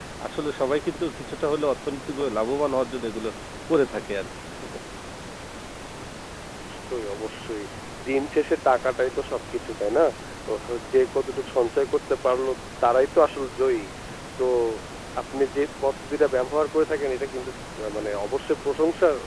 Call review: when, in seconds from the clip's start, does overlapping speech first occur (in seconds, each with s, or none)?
none